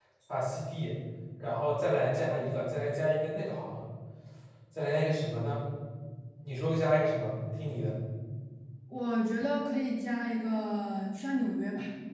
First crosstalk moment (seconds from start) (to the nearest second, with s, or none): none